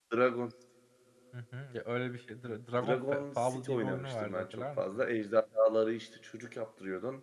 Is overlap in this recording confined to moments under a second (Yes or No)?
No